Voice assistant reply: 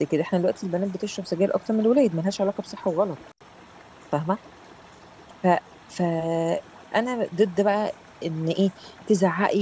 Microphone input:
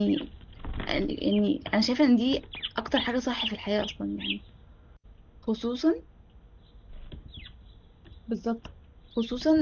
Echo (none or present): none